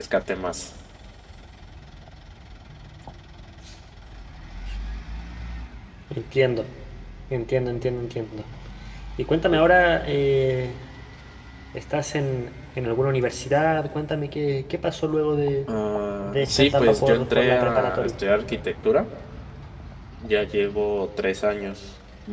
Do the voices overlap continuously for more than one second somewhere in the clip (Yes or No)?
Yes